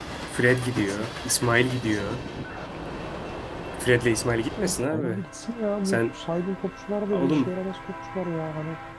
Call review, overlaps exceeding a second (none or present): none